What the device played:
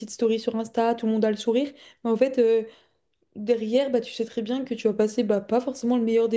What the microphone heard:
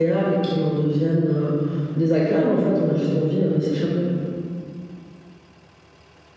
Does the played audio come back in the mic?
No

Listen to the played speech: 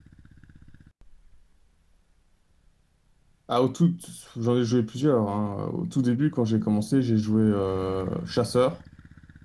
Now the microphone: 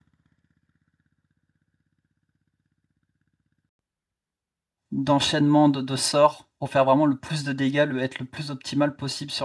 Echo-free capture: Yes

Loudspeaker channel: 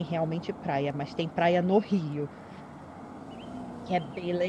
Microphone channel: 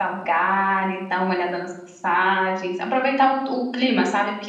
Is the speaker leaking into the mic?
No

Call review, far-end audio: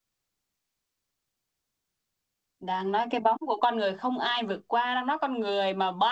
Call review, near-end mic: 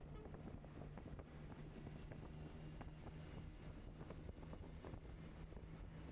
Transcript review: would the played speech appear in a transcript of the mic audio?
No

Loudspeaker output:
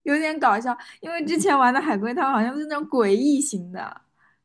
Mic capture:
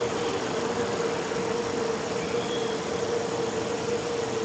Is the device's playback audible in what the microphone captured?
No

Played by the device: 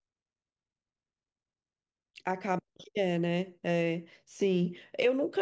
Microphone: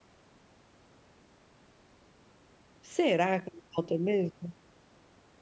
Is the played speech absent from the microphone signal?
Yes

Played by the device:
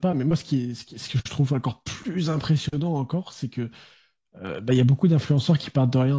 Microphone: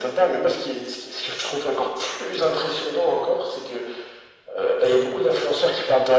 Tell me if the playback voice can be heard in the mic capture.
Yes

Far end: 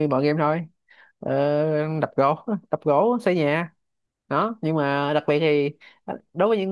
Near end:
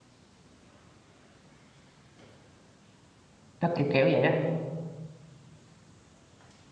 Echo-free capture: Yes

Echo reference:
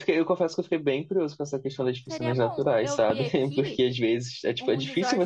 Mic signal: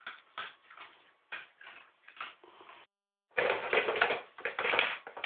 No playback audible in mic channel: Yes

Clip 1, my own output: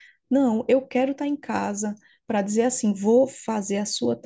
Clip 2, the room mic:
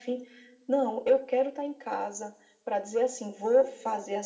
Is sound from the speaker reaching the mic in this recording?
Yes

